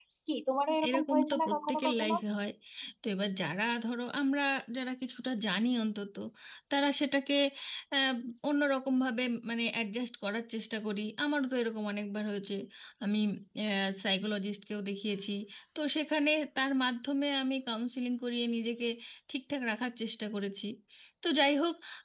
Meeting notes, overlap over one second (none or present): present